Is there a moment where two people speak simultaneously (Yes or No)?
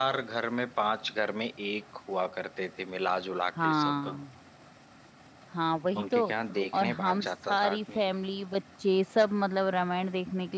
Yes